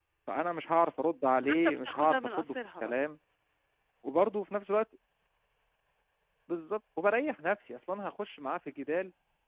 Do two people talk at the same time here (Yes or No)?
Yes